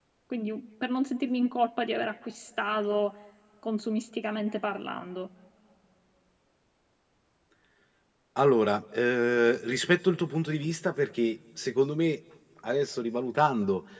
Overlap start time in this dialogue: none

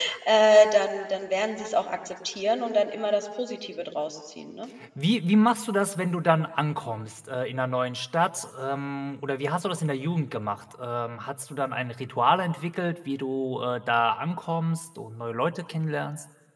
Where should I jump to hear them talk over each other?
none

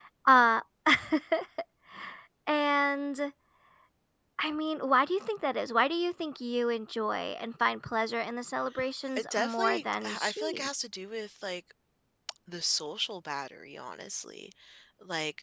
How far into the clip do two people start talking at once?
9.3 s

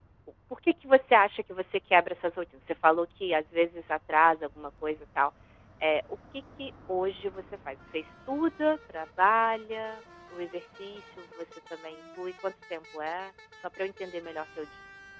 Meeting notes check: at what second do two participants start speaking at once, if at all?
none

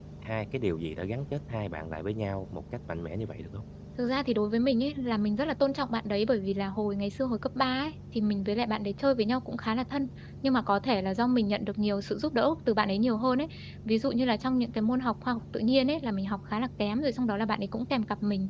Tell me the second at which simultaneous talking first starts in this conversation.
none

